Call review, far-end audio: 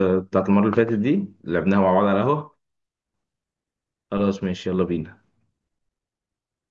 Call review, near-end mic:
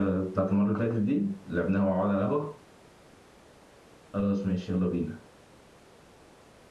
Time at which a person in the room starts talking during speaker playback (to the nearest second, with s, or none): none